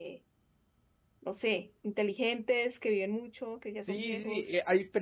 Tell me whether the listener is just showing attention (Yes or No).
No